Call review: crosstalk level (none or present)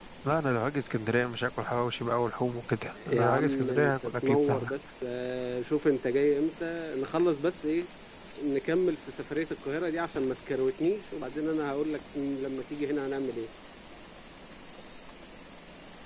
present